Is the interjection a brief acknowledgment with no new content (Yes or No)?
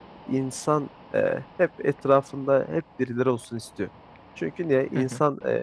Yes